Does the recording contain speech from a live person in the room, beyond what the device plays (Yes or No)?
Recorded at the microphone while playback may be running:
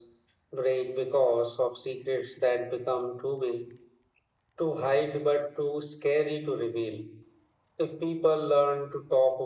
No